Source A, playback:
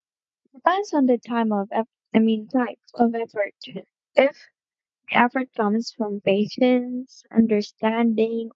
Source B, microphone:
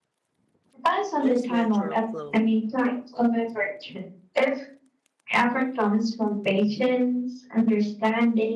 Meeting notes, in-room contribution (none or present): present